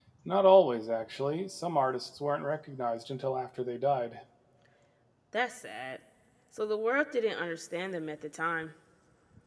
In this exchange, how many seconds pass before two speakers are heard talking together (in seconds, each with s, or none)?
none